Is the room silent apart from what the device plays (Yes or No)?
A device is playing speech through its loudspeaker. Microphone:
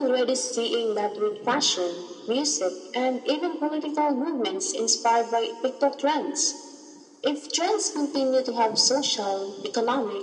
Yes